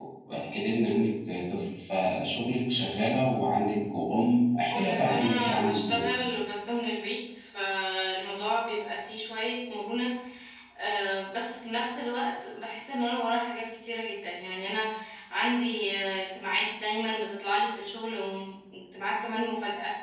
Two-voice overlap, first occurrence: 5 s

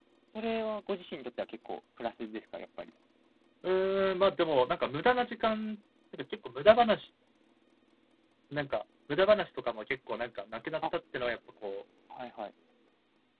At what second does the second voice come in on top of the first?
none

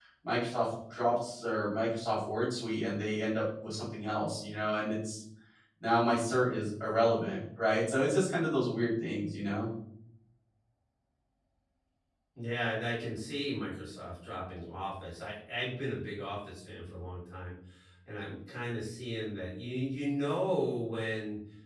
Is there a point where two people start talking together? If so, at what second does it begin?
none

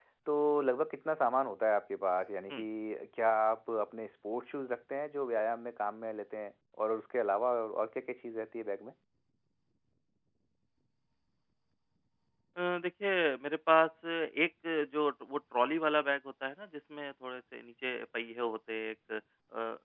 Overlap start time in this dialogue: none

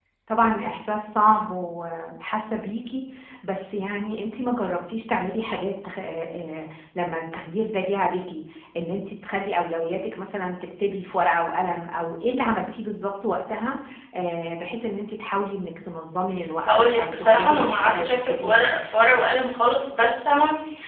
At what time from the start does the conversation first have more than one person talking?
17 s

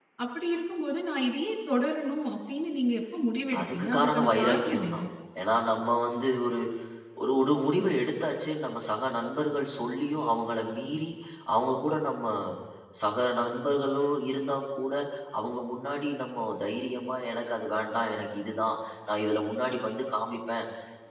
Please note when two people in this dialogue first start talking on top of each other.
4 s

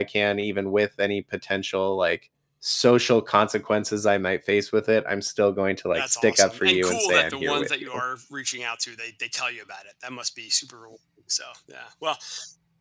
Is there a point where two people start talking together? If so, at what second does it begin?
6 s

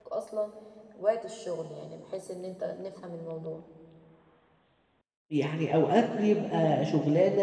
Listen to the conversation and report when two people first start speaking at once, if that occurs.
none

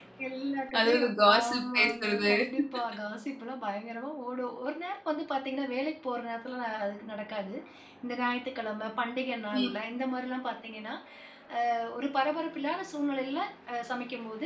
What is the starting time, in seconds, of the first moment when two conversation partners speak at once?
1 s

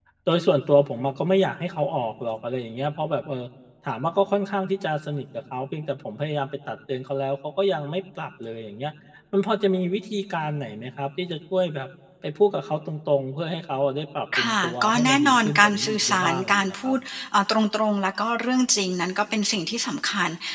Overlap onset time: 14 s

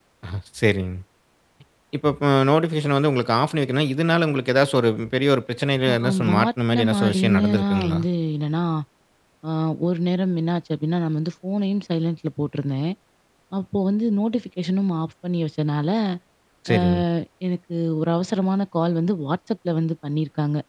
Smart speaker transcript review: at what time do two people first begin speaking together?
6 s

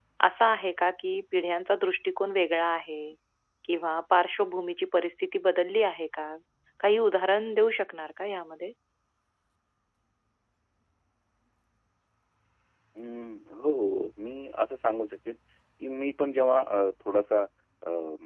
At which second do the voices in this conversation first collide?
none

